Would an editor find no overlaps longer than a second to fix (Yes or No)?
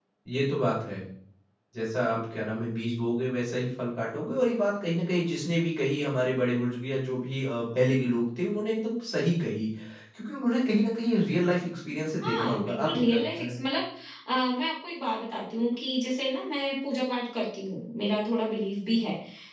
No